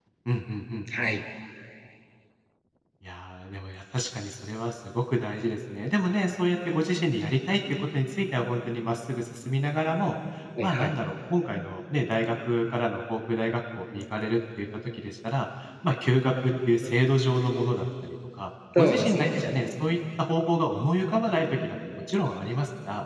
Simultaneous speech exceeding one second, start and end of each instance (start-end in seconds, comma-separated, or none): none